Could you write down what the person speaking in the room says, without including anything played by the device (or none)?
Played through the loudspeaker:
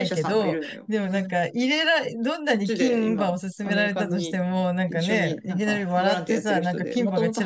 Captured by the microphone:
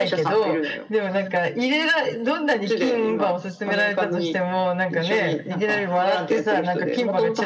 none